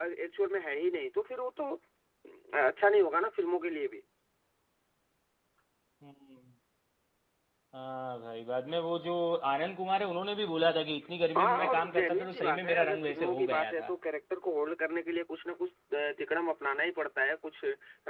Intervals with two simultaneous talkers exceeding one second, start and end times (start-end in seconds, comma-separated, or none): 11.4-13.9